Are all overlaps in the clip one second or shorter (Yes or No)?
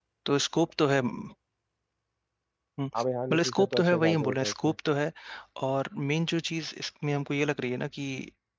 No